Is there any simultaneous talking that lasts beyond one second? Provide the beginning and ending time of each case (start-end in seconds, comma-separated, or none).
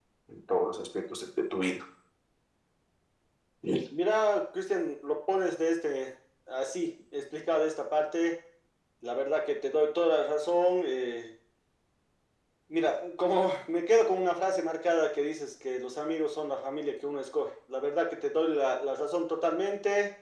none